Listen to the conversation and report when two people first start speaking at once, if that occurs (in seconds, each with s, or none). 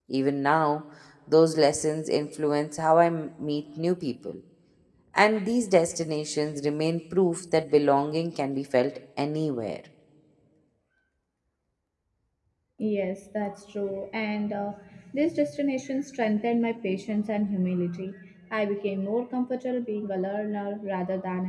none